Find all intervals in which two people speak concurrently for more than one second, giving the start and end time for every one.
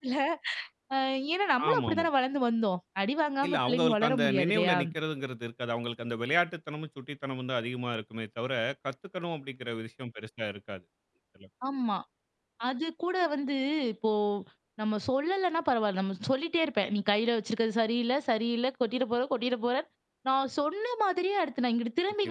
3.5-4.8

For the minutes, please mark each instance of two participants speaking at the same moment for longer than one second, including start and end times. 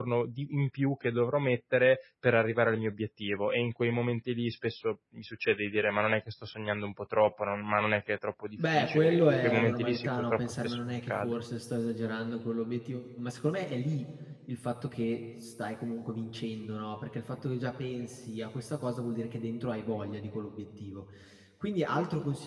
8.7-11.3

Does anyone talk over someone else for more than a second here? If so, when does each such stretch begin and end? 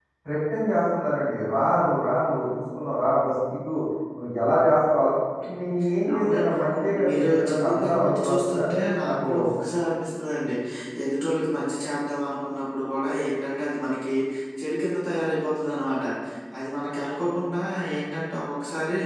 6.7-8.5

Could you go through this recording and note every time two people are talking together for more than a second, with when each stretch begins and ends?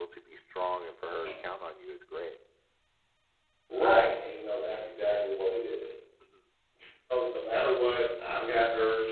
none

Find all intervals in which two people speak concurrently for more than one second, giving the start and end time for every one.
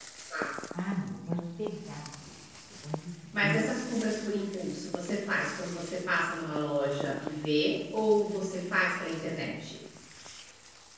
none

